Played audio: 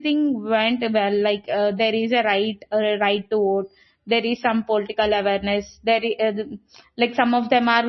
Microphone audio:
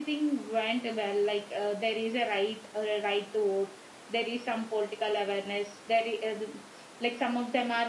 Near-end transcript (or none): none